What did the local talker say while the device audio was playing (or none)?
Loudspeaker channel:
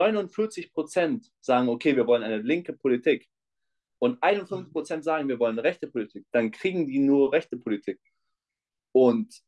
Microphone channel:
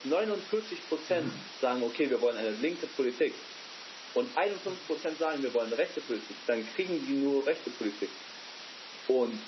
Mhm.